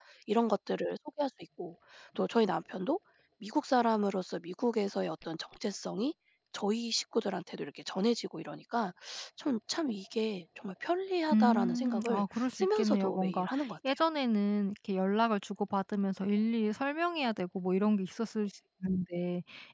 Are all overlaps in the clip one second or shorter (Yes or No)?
No